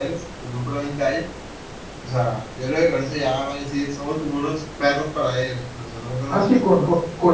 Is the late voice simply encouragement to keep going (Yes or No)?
No